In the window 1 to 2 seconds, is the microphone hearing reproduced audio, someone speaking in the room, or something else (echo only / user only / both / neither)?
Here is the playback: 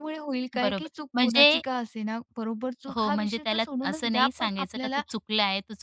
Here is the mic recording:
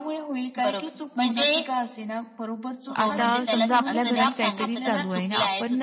echo only